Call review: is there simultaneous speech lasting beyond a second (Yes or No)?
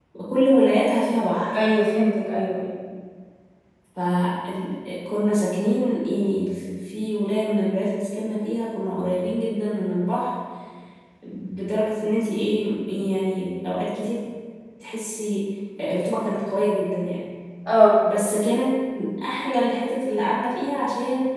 No